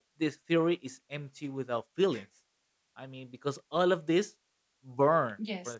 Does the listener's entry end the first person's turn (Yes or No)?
No